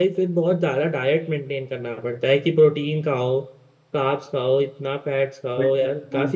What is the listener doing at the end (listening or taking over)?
taking over